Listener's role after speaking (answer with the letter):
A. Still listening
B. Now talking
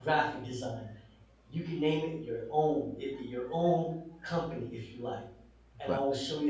A